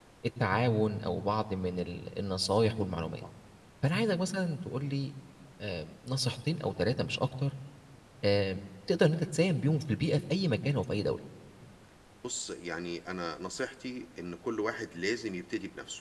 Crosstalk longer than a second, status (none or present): none